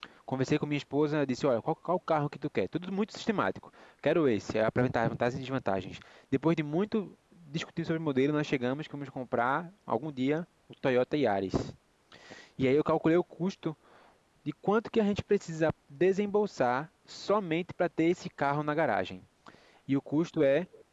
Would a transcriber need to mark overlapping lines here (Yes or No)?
No